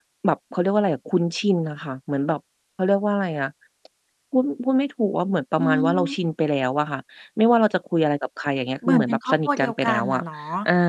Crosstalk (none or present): present